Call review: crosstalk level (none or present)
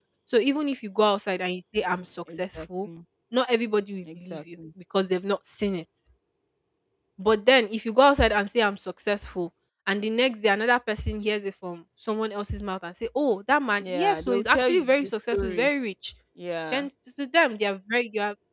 present